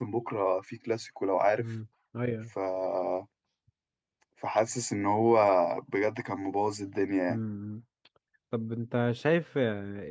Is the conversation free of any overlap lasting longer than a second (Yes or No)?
Yes